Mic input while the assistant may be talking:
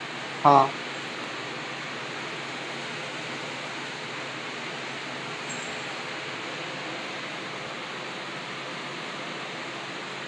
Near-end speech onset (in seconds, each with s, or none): 0.5 s